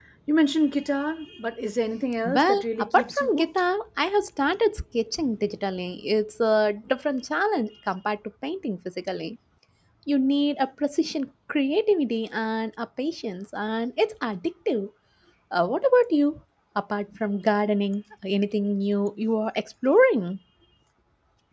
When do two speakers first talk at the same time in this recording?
2.2 s

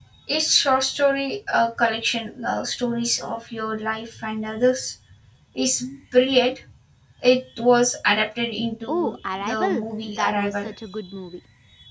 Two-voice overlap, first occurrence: 8.9 s

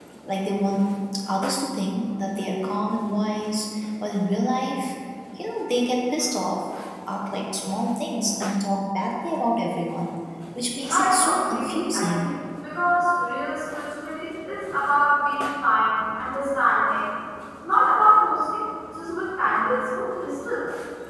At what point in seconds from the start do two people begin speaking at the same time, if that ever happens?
10.9 s

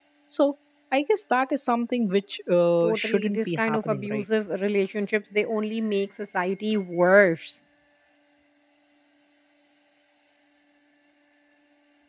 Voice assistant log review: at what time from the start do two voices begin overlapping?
2.8 s

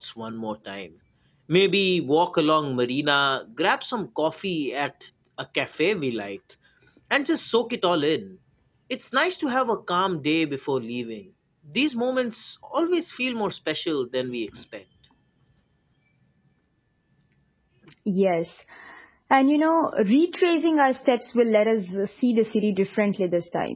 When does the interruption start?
none

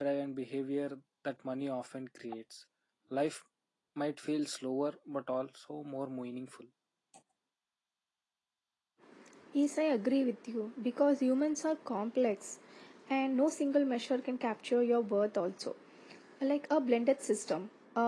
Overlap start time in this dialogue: none

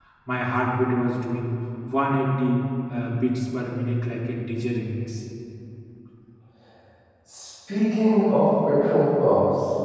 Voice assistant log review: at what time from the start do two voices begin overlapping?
none

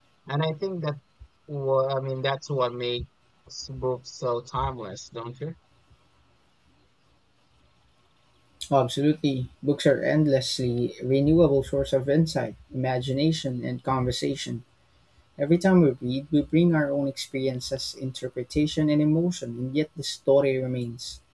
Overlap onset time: none

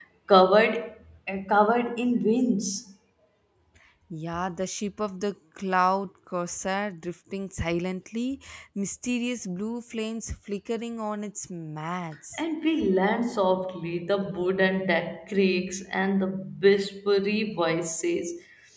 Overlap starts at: none

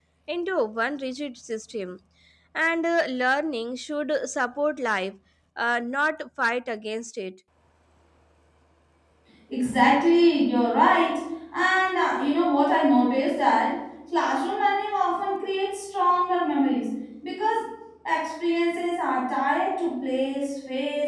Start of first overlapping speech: none

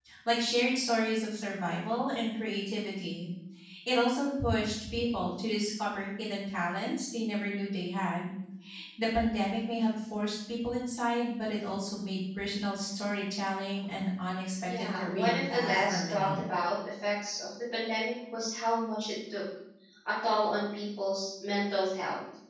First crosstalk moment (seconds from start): 14.6 s

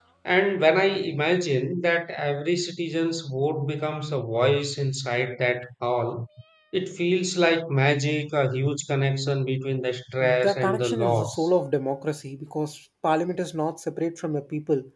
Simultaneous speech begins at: 10.2 s

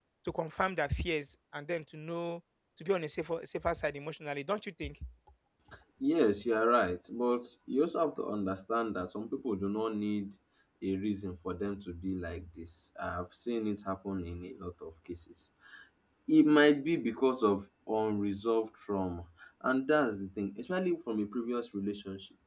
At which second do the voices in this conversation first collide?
none

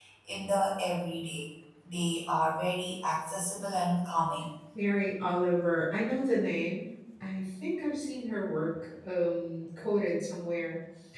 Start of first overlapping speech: none

